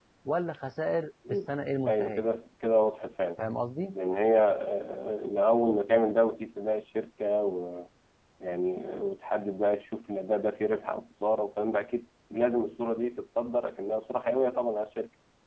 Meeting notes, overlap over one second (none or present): none